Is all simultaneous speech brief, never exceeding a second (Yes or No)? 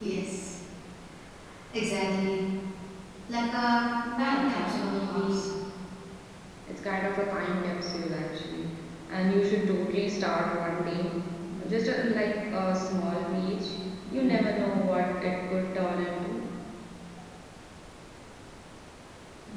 No